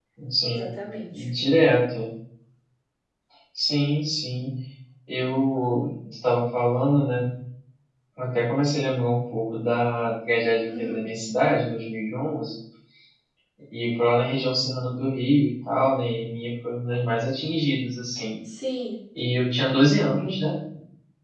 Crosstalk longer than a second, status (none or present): none